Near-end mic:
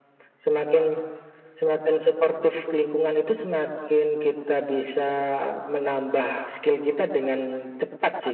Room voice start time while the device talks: none

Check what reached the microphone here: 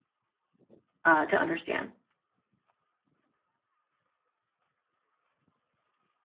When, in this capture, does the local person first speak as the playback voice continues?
1.0 s

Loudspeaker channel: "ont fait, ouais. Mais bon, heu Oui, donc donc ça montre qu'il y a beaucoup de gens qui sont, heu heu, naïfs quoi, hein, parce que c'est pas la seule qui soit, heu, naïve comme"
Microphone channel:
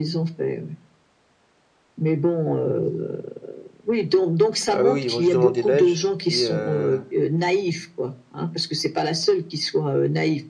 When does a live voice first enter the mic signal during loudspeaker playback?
4.7 s

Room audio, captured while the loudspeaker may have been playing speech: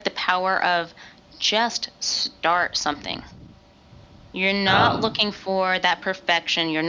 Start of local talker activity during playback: 4.7 s

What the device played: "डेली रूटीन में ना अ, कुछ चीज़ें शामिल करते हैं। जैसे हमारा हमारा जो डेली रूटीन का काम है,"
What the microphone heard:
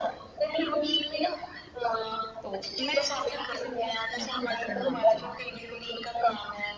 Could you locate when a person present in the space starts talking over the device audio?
2.4 s

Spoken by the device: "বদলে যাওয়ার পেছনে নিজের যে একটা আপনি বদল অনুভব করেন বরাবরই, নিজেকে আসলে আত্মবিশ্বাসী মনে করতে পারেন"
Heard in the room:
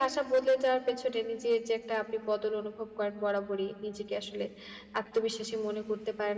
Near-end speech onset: none

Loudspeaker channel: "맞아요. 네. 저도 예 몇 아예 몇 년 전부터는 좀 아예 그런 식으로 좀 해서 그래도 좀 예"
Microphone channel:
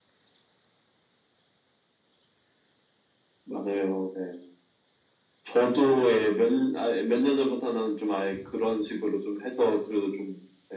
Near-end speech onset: none

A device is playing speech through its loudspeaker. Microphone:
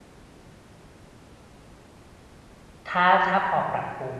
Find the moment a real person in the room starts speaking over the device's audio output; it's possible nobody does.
2.9 s

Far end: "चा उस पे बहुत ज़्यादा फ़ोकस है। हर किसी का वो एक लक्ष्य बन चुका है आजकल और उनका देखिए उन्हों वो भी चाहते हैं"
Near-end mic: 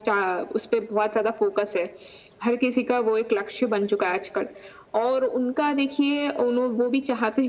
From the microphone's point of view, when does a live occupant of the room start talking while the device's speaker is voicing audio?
none

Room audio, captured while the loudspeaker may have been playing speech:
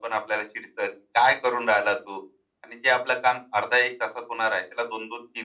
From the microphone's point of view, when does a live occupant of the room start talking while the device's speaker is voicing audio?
none

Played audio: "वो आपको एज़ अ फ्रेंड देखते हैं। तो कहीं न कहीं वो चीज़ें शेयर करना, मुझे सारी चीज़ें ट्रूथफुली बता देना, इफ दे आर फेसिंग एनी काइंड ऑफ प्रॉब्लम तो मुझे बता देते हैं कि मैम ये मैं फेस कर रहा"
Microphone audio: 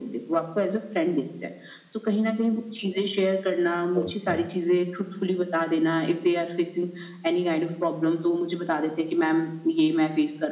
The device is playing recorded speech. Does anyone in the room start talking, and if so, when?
4.0 s

